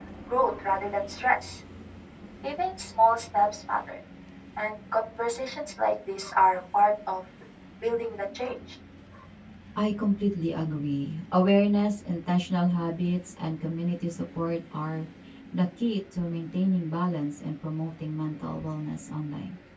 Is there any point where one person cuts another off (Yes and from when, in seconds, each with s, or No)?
No